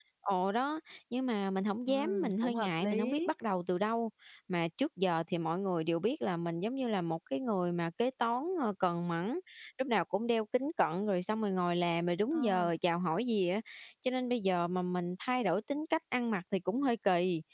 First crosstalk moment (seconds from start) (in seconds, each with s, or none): 1.9 s